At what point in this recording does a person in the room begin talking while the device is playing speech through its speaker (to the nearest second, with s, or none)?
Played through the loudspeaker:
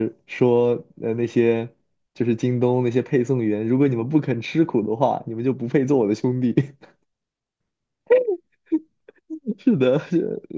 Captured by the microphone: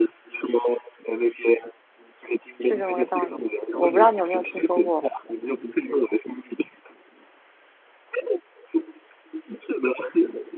3 s